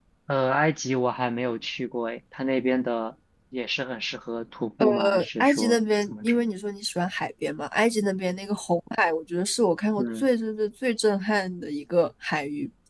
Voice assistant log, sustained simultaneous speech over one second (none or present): present